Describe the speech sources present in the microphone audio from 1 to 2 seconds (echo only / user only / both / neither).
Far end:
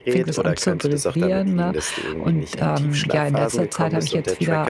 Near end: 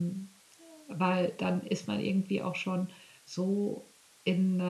user only